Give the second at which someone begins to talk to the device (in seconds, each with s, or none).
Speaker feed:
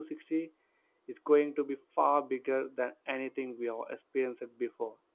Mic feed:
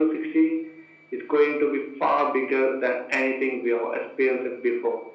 none